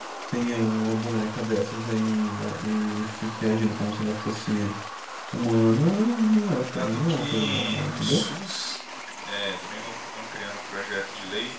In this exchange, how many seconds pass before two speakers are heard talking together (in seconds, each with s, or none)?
6.7 s